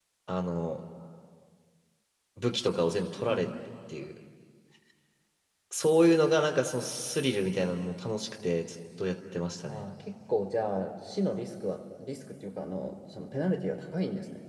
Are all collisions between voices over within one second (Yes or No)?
Yes